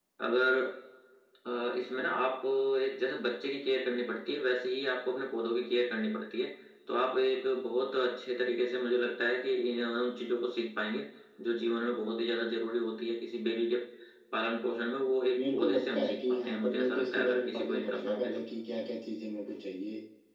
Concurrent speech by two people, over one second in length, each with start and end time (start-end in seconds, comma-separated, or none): 15.3-18.4